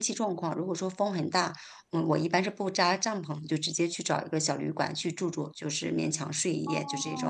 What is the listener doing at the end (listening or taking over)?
taking over